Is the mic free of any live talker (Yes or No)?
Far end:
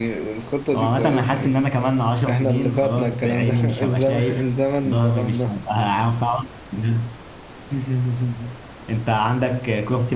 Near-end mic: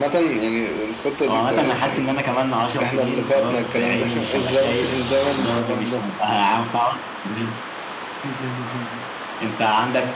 Yes